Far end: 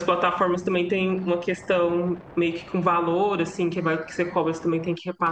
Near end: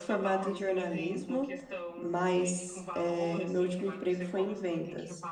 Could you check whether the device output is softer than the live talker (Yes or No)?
Yes